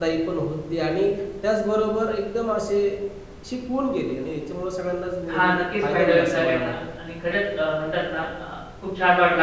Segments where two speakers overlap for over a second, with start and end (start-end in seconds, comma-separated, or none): 5.3-6.8